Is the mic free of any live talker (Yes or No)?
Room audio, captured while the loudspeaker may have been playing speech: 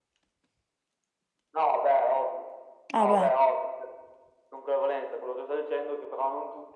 No